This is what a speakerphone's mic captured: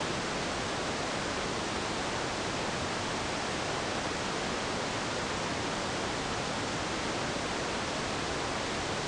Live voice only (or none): none